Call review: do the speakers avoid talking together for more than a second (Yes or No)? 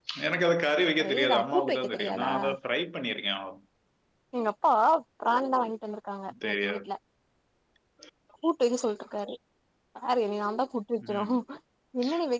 No